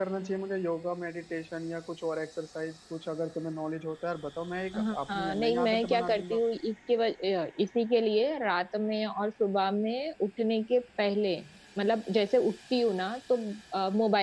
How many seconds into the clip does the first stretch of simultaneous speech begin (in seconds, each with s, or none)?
4.7 s